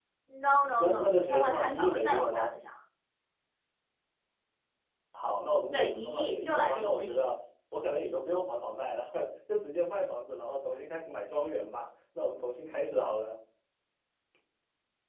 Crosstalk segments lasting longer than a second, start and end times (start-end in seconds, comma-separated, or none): 0.8-2.5, 5.7-7.3